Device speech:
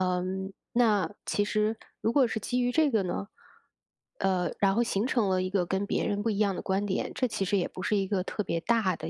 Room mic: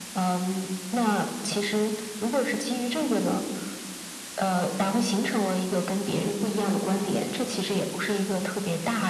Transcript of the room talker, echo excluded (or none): none